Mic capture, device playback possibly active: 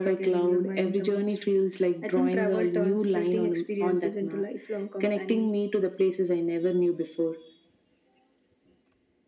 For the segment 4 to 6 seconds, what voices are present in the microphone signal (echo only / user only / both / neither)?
echo only